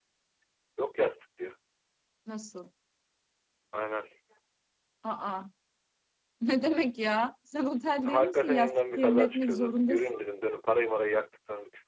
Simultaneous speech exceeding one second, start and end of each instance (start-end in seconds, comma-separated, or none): 8.1-10.2